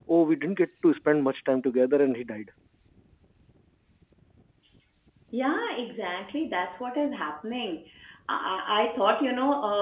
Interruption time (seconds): none

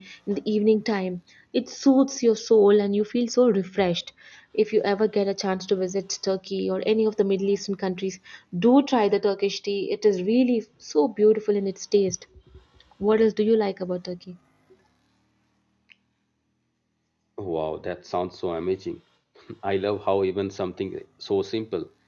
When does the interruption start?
none

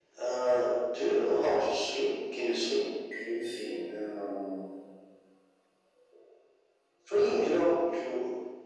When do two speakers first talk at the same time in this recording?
none

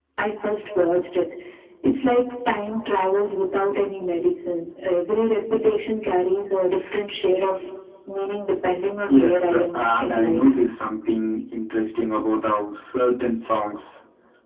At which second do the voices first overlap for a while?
9 s

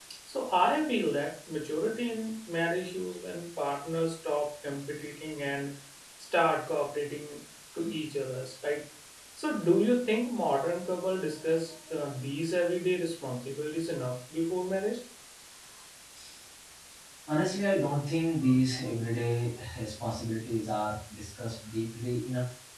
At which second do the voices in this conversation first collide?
none

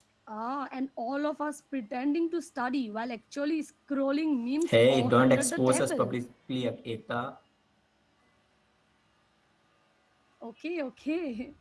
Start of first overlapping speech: 5 s

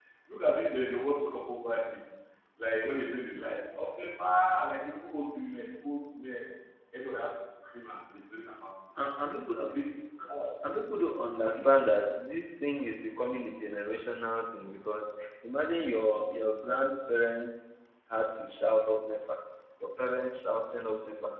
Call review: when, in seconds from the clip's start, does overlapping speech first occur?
none

